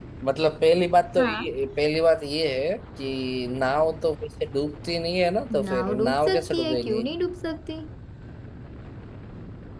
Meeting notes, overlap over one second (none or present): present